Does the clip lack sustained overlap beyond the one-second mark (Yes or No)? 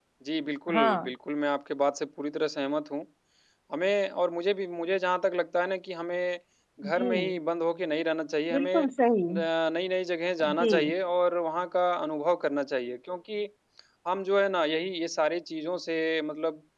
Yes